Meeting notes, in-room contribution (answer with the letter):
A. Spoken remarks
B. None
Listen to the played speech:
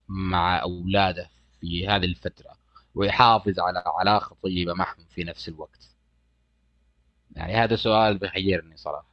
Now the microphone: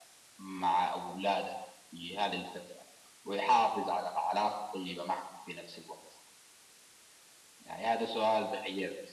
B